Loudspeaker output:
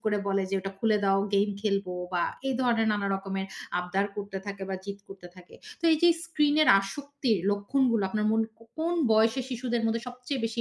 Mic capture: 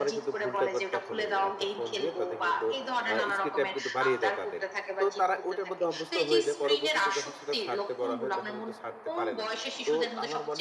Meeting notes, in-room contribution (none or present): present